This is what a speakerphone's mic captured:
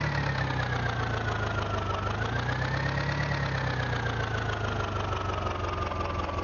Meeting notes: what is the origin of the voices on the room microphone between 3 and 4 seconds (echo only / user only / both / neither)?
neither